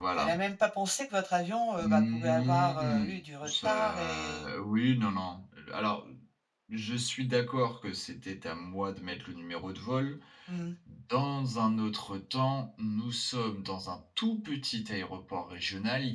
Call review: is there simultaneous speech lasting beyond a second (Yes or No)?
Yes